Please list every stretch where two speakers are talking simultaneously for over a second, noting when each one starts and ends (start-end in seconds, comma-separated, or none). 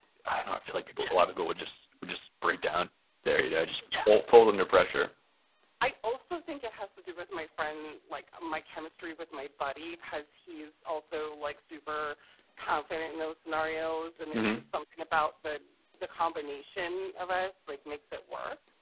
none